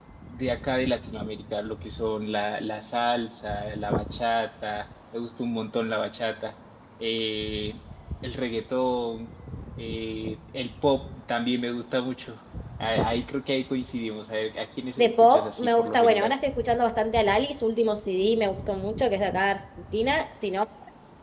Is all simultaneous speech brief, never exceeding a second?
No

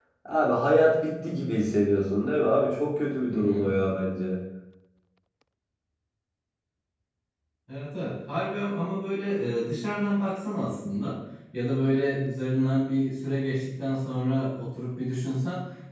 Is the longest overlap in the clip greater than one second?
No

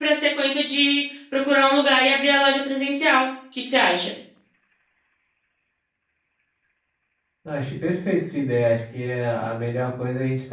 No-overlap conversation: Yes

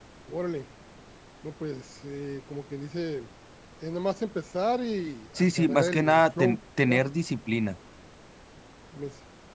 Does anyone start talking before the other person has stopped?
Yes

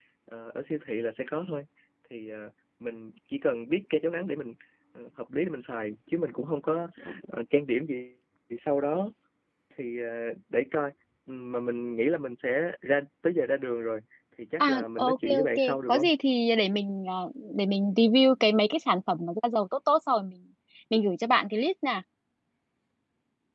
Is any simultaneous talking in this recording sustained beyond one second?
Yes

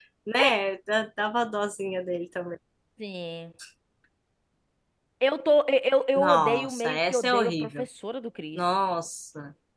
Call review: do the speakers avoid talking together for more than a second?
No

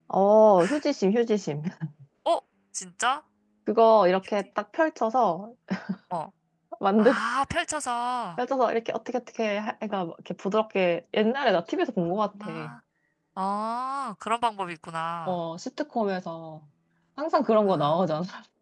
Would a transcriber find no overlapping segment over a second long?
Yes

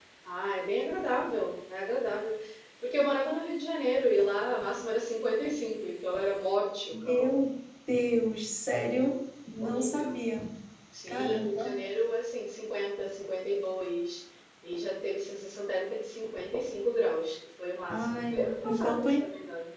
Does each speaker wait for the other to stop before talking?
No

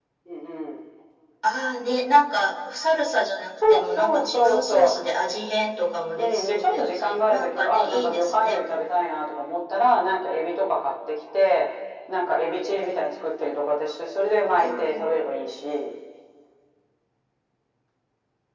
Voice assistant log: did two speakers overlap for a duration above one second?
Yes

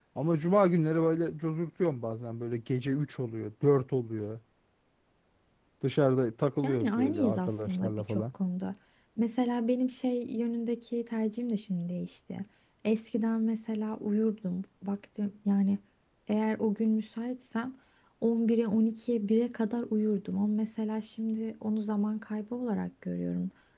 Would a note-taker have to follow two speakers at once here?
Yes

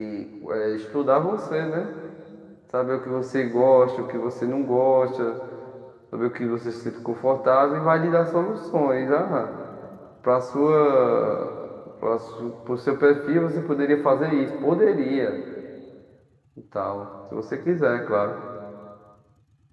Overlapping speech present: No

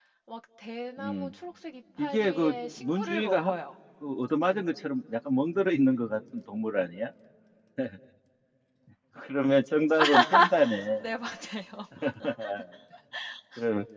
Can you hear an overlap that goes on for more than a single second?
Yes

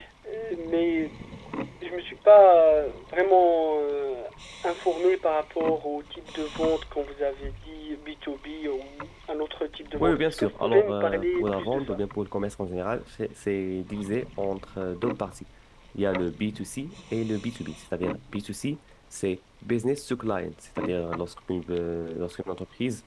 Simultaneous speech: Yes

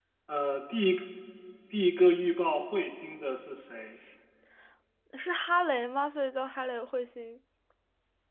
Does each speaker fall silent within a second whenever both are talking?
Yes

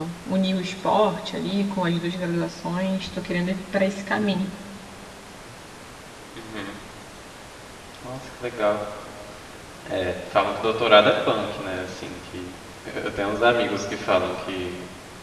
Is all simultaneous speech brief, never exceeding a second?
Yes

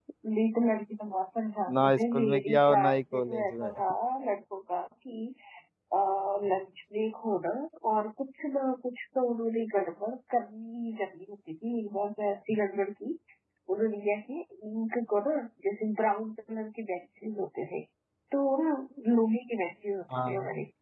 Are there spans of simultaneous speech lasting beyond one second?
Yes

